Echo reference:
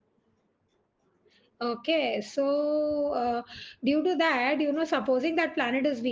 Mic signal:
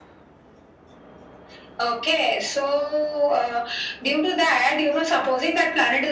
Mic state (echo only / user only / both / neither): echo only